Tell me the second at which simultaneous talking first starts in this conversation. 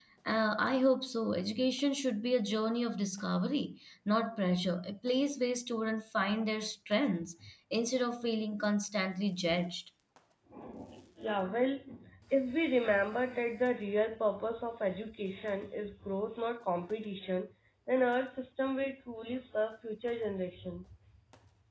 none

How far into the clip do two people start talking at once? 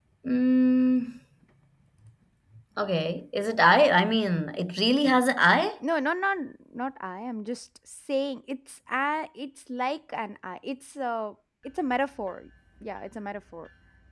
none

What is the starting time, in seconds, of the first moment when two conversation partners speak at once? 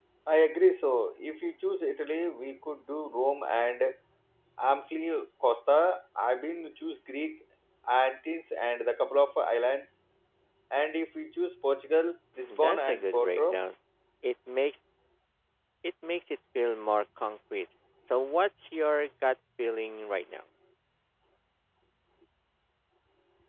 12 s

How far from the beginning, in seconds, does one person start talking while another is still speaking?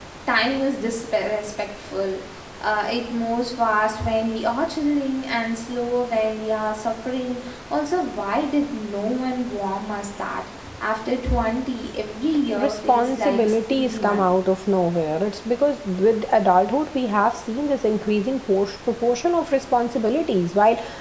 13 s

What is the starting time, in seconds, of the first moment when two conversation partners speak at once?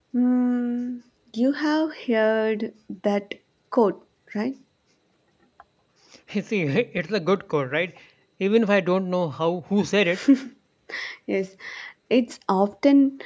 none

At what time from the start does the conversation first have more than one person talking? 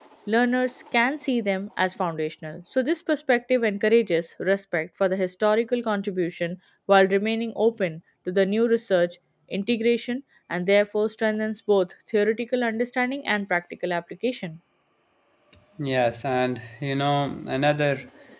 none

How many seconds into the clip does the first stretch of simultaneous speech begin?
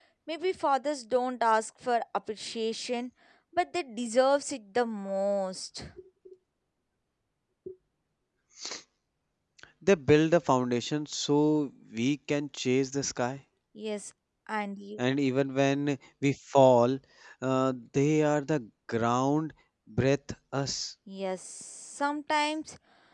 none

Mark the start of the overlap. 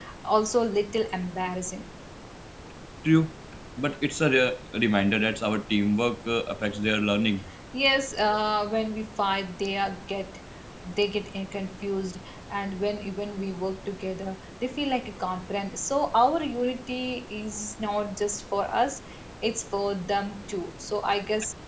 none

